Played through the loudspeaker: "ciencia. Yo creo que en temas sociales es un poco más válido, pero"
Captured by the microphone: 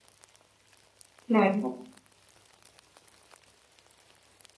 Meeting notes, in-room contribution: present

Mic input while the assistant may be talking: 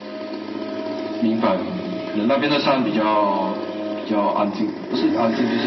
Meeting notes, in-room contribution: none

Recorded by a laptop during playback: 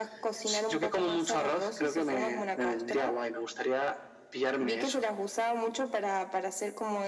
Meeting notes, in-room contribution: none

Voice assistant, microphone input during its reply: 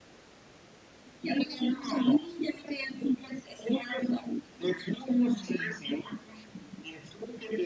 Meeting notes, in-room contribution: present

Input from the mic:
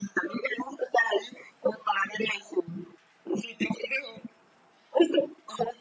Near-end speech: none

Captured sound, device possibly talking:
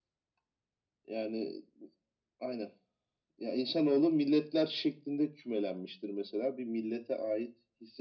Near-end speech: none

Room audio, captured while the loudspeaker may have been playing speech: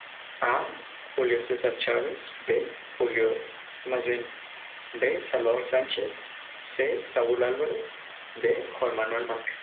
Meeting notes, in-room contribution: none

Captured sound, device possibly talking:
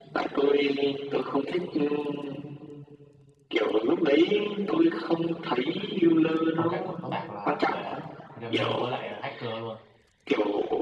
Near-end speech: present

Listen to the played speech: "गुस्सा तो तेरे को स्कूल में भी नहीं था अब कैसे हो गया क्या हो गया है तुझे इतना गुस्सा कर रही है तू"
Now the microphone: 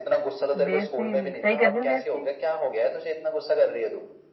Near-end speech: present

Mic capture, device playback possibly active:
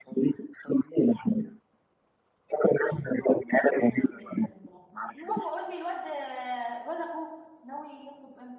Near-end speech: present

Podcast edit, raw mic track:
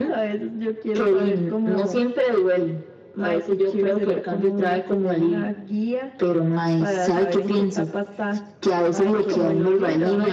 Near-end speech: present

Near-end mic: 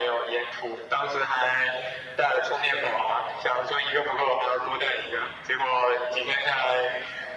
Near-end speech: none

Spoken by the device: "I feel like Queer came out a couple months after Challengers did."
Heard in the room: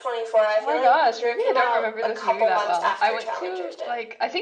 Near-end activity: present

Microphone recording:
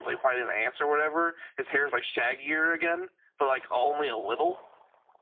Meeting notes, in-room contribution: none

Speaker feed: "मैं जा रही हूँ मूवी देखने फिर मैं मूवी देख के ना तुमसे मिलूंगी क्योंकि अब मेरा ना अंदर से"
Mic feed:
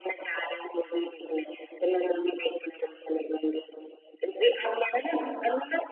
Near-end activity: none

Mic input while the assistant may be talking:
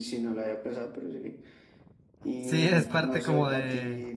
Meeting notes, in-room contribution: present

